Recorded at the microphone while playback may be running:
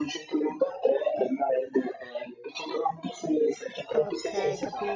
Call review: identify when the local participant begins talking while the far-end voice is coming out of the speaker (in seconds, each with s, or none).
3.9 s